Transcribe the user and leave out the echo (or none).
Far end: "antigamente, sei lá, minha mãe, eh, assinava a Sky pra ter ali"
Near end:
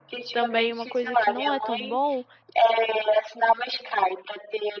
também uma coisa que não é tão bom,